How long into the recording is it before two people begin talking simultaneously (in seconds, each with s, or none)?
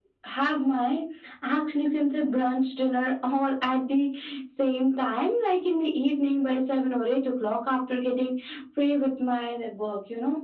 none